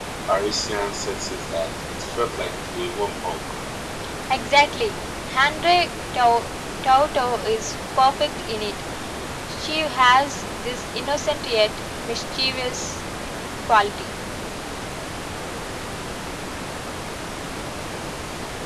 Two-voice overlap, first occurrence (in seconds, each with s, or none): none